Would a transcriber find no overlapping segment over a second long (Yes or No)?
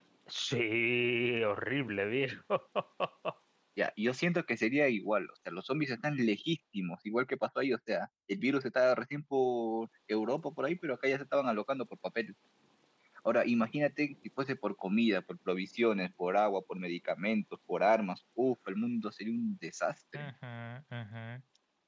Yes